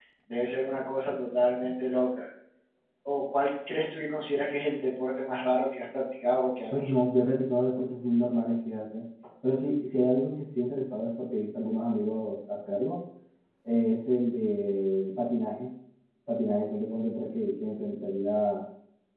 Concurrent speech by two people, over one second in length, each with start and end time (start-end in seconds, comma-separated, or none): none